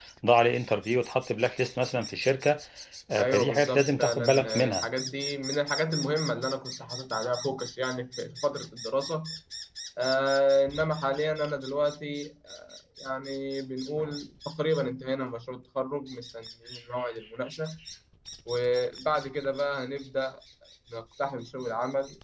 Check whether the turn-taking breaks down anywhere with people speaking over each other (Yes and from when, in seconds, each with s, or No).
Yes, from 3.2 s